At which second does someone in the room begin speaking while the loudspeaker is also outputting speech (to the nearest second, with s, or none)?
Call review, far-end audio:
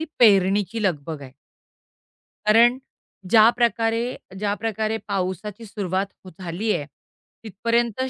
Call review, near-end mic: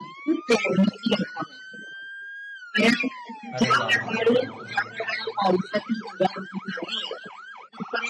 4 s